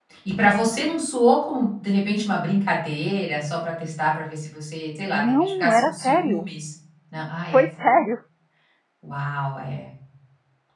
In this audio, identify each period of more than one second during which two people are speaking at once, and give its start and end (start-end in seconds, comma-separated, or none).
5.1-6.5